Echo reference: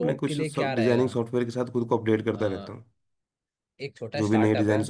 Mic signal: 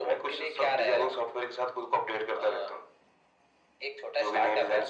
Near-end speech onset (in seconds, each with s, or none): none